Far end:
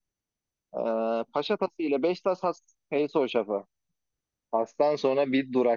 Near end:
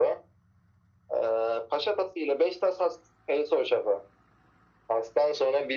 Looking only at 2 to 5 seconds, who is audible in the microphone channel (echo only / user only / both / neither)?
echo only